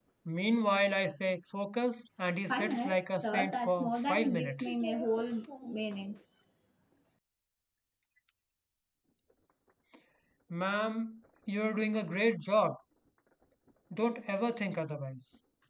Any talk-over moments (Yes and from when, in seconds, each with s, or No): Yes, from 2.5 s